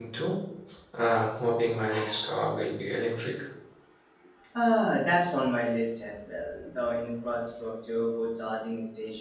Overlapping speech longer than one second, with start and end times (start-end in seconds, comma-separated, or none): none